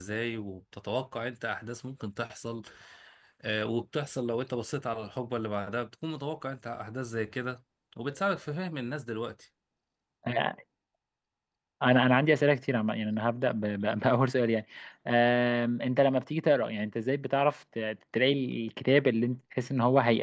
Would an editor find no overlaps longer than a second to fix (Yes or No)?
Yes